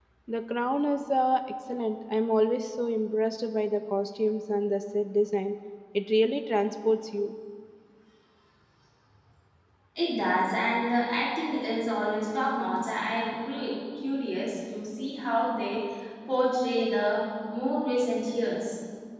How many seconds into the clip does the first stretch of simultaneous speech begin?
none

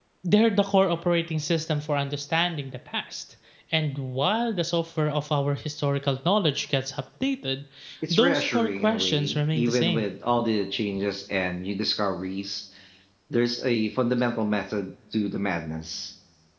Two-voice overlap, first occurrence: 8 s

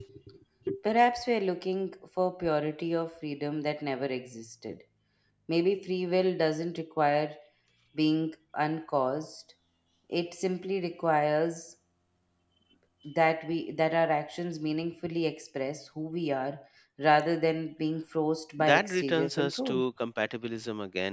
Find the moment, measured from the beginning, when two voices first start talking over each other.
19 s

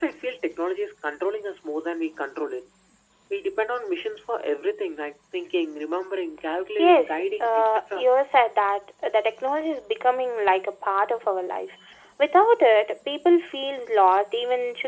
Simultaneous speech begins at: 7 s

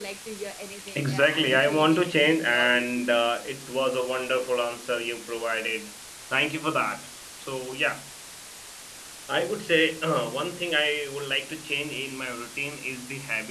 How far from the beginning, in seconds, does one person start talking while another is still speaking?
1 s

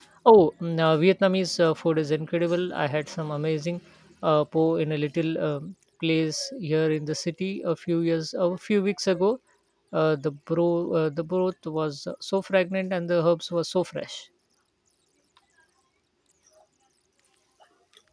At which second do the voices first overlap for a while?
none

